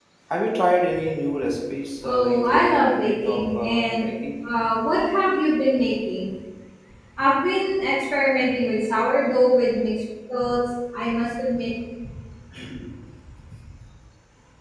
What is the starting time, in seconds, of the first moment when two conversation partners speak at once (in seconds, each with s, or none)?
2.0 s